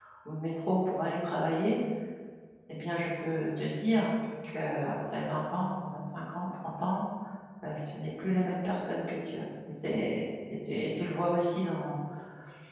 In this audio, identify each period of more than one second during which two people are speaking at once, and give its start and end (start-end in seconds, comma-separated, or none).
none